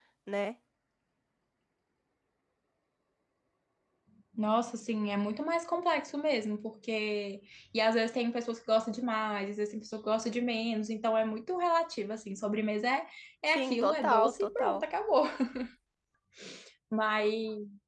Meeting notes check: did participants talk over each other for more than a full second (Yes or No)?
Yes